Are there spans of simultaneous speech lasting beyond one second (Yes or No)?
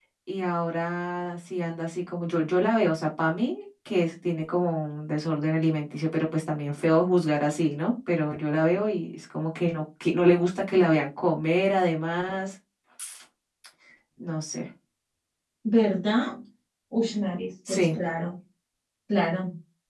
No